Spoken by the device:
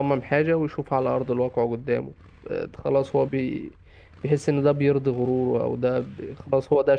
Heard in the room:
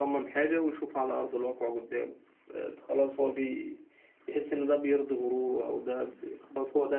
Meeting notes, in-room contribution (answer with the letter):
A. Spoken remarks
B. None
B